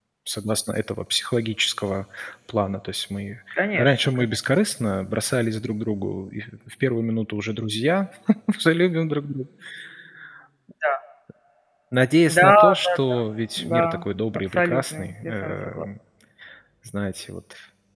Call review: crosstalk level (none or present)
present